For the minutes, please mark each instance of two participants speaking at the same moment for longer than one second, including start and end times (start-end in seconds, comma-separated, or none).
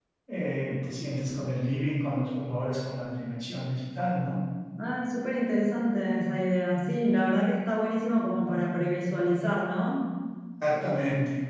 none